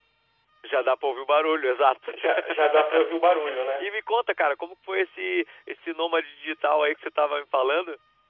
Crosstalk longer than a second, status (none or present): none